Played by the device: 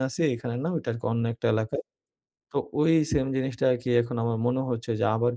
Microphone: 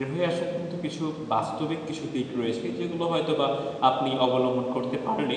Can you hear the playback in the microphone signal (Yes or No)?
No